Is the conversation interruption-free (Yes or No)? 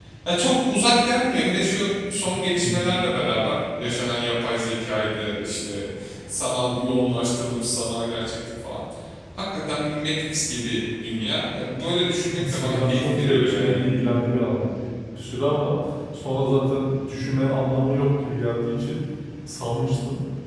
No